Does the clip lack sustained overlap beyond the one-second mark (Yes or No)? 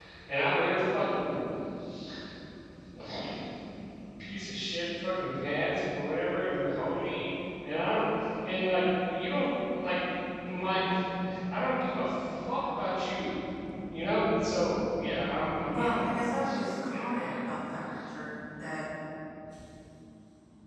No